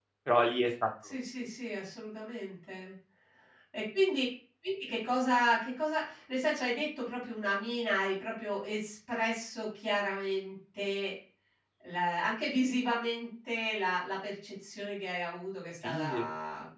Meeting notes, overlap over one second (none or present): none